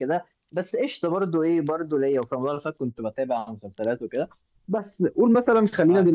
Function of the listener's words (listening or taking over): listening